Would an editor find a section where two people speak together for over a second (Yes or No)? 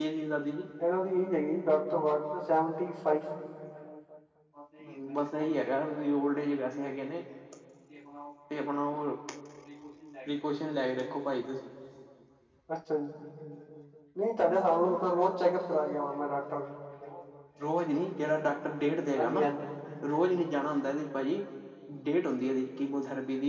No